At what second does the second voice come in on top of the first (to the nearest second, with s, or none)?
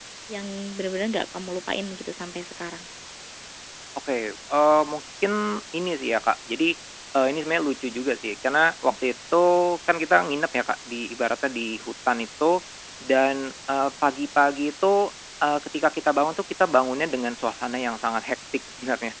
none